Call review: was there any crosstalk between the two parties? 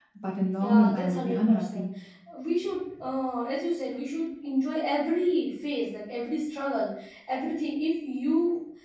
Yes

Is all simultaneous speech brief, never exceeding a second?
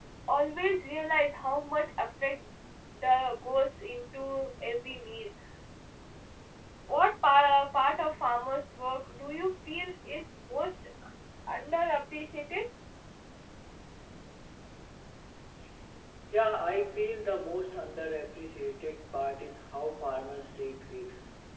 Yes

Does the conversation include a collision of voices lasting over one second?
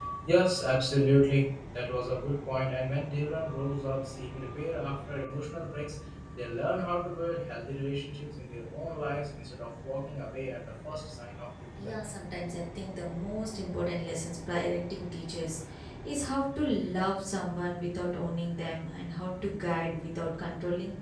No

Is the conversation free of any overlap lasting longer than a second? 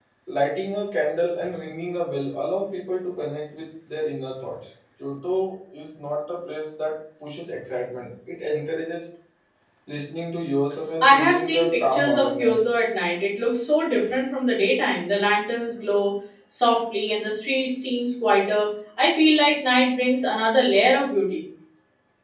No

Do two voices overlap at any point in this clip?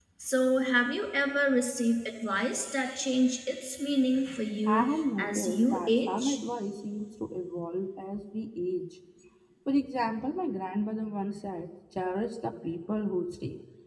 Yes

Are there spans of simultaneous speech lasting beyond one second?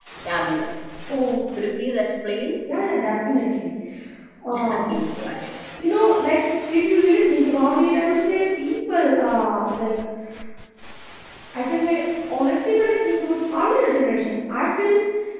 No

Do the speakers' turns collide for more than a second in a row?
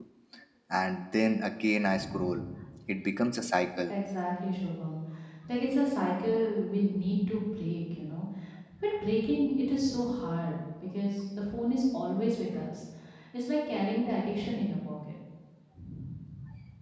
No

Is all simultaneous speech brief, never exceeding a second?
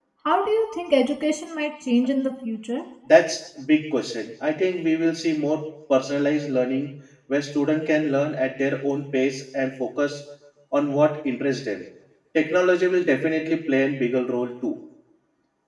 Yes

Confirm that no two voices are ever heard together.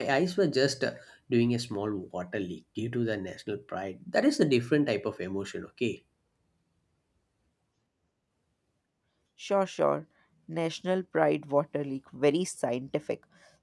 Yes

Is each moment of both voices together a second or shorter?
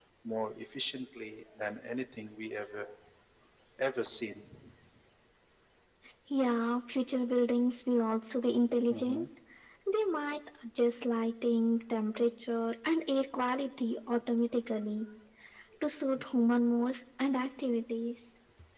Yes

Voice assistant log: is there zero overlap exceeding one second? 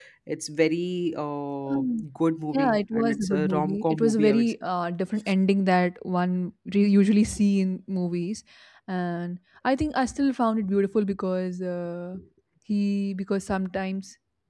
No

